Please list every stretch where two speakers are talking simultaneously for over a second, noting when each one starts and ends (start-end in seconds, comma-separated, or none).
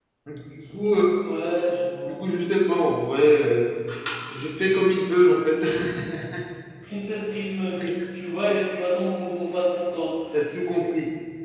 none